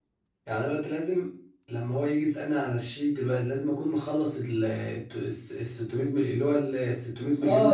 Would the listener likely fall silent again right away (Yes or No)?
No